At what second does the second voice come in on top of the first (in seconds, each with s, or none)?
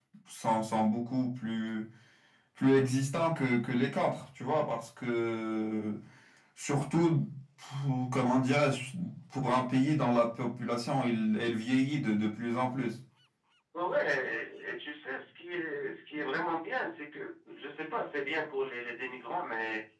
none